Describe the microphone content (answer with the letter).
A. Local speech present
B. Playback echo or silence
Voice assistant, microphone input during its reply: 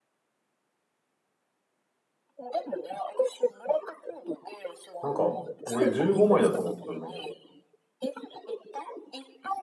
A